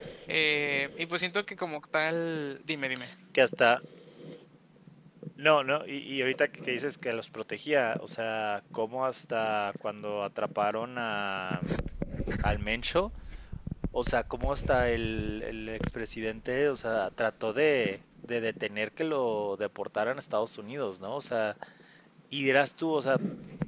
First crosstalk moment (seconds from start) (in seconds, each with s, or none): none